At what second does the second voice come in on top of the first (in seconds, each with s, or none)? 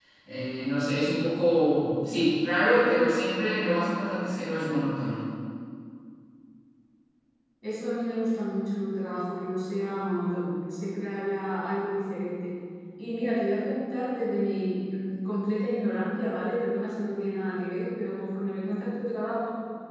none